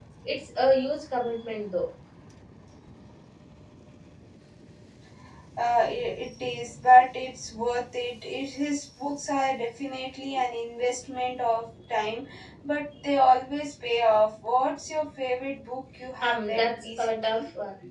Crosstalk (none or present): present